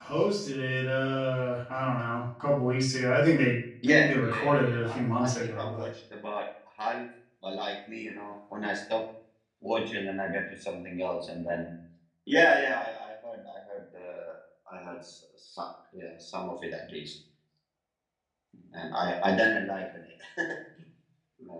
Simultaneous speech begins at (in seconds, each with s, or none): 3.8 s